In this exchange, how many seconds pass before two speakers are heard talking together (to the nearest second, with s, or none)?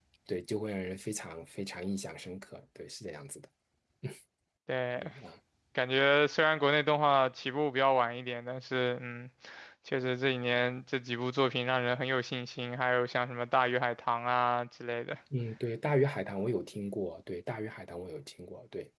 none